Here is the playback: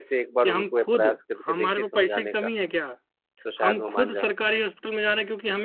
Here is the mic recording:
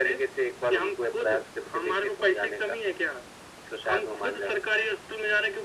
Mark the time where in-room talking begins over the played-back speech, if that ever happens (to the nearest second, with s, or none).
none